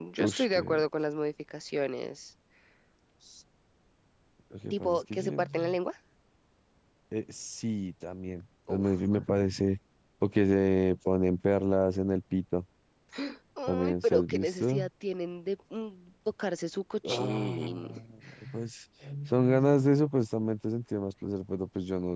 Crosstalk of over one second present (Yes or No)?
Yes